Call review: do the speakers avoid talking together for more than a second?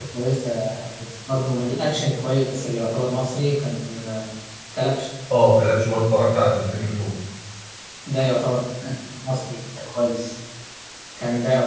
Yes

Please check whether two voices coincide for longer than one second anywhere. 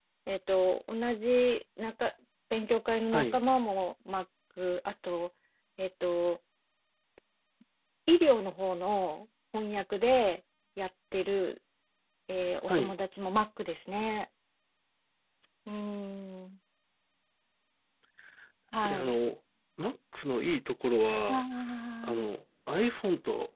No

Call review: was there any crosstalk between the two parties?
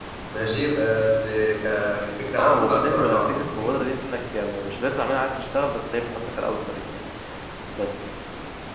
Yes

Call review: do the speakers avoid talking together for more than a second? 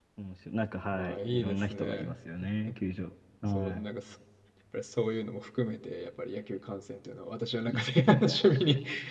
No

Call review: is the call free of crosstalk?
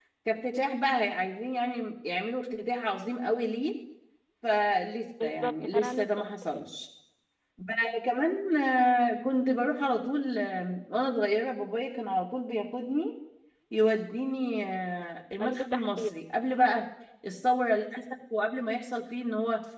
No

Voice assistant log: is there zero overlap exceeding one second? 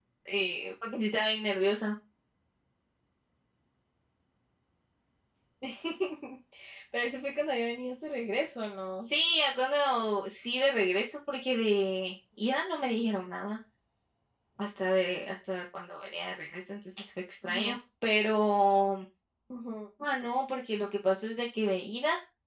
Yes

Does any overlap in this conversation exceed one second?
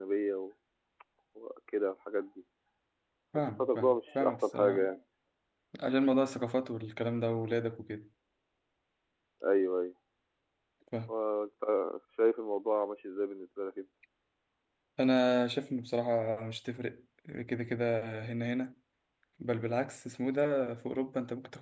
Yes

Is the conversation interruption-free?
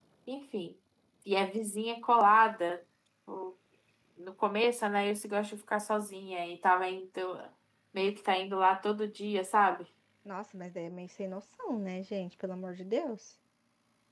Yes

